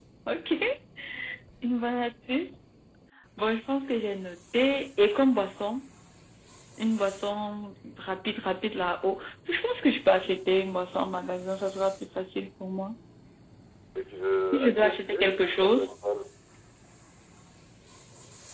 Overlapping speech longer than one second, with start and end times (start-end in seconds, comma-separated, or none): 14.5-15.9